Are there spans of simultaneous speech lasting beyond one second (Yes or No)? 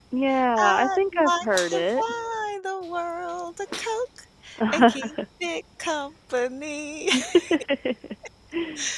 Yes